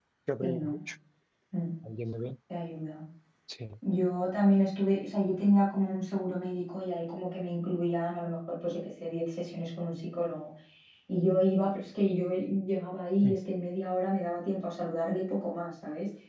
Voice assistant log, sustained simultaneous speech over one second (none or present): none